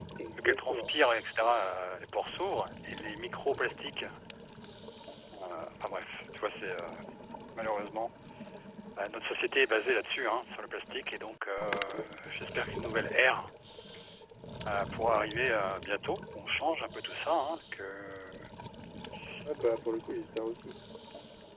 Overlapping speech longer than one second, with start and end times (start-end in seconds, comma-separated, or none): none